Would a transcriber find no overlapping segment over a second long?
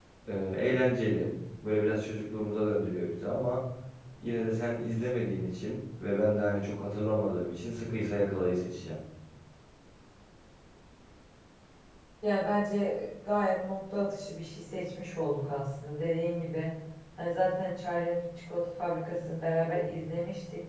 Yes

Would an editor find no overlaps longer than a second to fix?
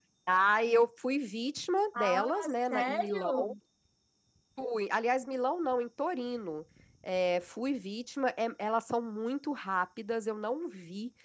No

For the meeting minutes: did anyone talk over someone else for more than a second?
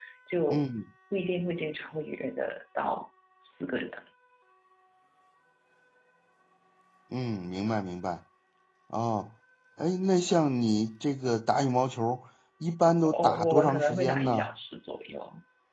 Yes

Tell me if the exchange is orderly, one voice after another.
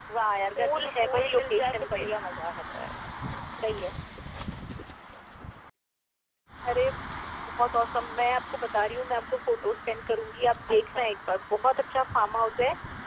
No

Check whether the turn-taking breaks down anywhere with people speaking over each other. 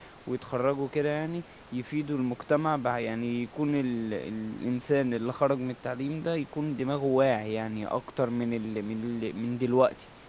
No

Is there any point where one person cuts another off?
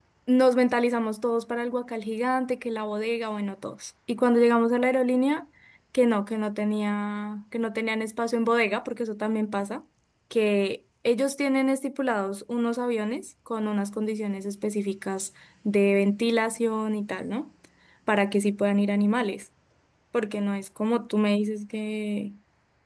No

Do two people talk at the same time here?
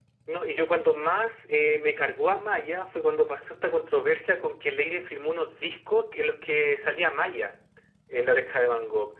No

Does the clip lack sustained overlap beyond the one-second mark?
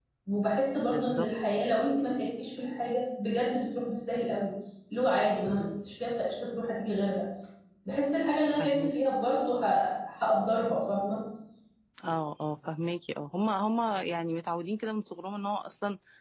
Yes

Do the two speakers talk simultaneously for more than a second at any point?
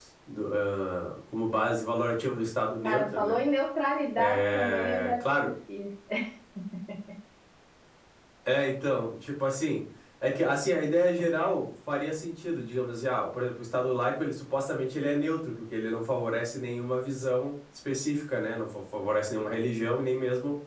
Yes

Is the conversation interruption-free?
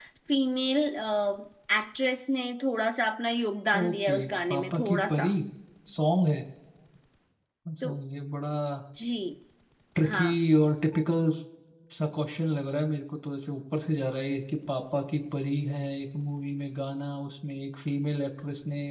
No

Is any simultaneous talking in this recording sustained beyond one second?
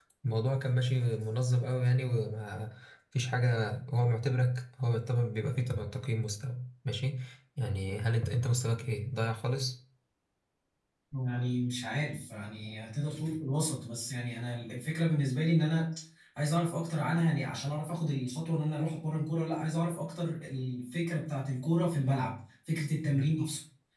No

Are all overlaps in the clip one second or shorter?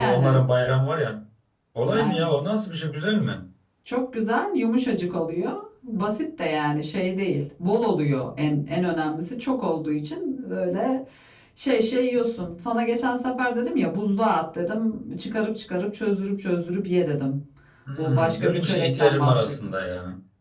No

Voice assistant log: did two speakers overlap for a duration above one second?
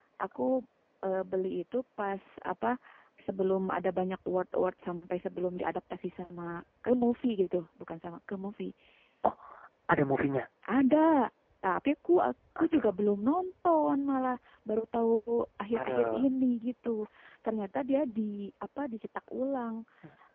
No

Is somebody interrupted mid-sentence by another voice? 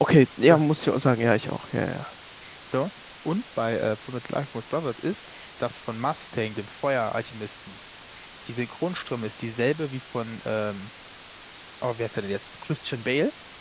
No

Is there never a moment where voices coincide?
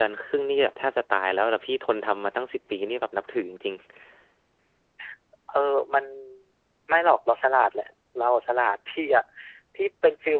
Yes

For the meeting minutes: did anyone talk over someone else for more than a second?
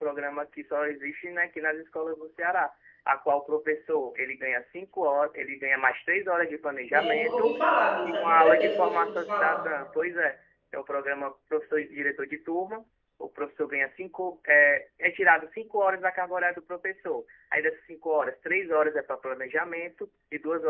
Yes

